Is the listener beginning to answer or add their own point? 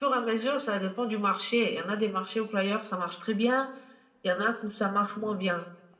No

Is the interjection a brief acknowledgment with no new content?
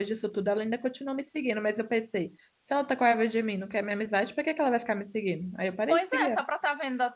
No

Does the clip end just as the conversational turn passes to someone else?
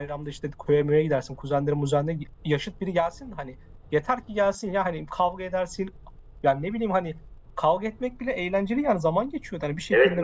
Yes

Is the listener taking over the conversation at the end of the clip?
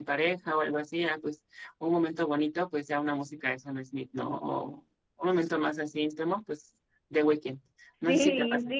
Yes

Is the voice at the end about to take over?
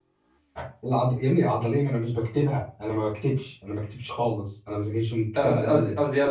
Yes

